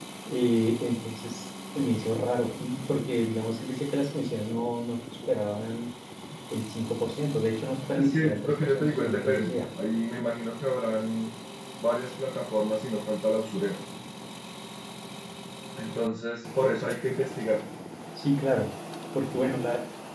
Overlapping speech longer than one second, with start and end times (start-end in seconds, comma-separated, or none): 8.0-9.6